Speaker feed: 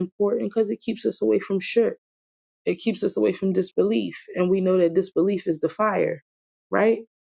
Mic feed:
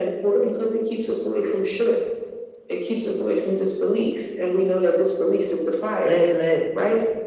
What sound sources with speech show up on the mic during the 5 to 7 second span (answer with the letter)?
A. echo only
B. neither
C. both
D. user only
C